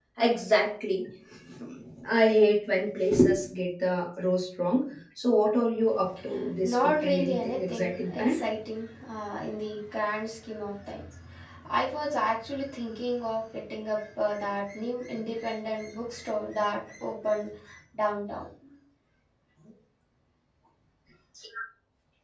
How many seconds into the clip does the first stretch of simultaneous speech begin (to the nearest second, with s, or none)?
7 s